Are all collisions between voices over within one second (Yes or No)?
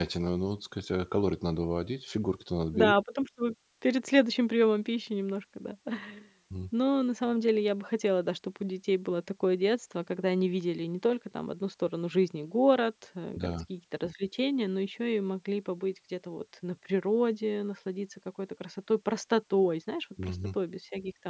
Yes